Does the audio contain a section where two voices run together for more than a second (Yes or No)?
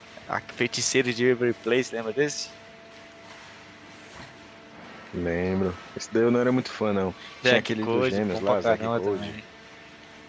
Yes